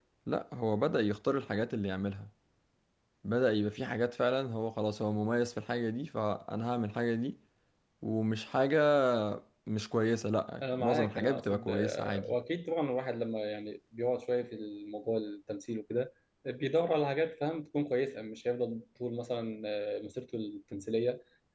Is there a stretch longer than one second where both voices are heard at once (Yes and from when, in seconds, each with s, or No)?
Yes, from 10.6 s